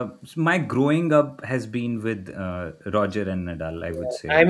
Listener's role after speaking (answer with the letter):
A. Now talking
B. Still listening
A